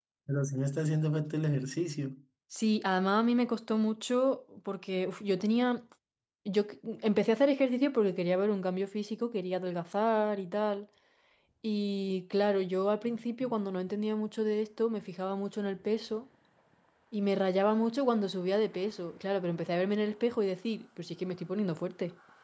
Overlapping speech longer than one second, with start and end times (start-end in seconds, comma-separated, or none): none